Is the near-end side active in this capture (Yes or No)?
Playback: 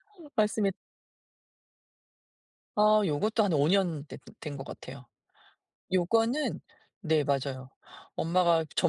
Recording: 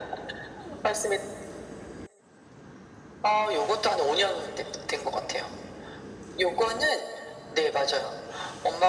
No